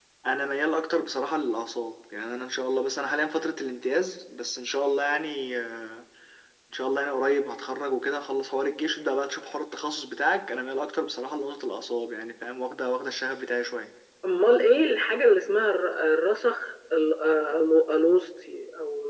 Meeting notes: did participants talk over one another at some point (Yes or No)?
No